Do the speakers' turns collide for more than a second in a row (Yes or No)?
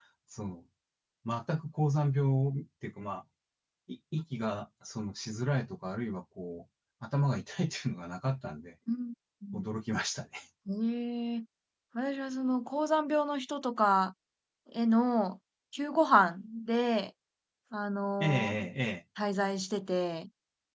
No